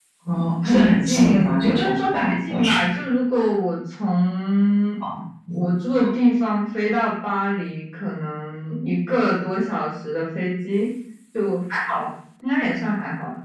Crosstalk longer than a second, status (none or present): present